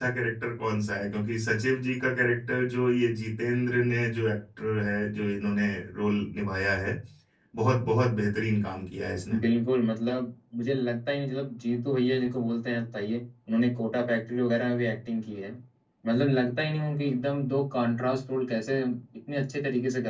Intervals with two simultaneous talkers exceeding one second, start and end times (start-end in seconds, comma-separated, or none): none